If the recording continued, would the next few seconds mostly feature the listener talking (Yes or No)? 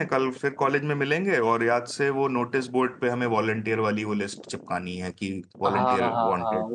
Yes